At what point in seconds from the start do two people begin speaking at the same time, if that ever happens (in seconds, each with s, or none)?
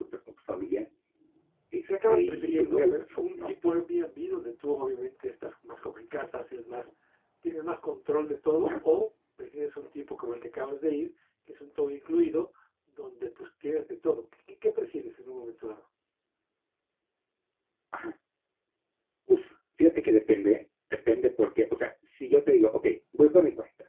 1.7 s